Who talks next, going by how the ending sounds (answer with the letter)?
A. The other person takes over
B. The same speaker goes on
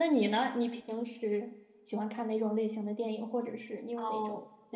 A